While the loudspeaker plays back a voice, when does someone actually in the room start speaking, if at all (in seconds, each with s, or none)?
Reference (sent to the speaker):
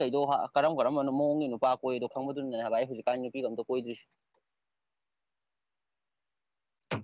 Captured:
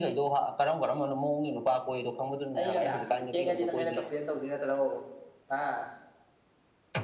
2.6 s